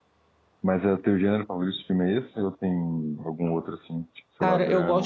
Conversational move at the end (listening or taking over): taking over